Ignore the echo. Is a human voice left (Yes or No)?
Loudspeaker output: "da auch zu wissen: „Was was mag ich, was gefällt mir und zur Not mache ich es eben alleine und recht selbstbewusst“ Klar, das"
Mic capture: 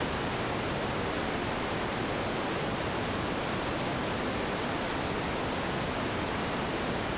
No